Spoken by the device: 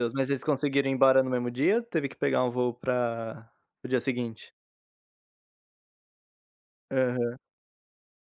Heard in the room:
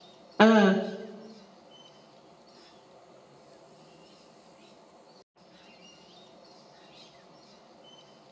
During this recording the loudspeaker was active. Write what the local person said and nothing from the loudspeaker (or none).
Hã.